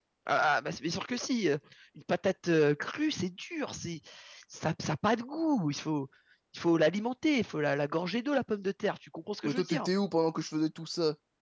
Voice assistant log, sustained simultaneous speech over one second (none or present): none